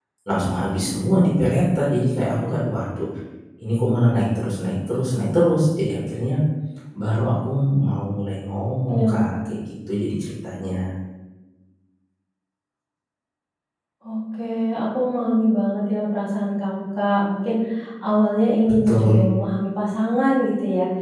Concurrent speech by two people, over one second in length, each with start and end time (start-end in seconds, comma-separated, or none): none